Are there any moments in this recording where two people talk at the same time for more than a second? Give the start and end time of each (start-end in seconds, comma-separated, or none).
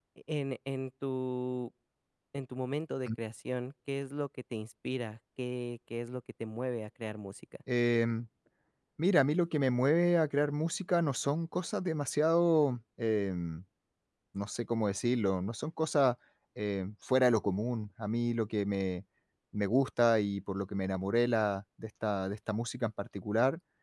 none